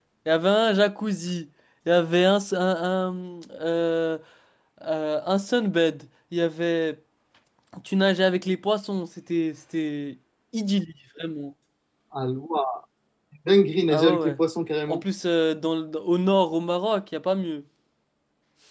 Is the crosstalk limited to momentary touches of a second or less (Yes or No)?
Yes